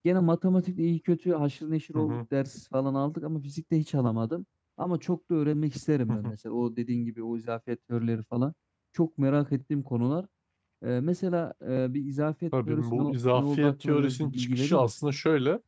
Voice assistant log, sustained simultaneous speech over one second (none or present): present